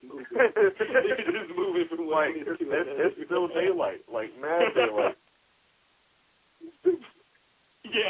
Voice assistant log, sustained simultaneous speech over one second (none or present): present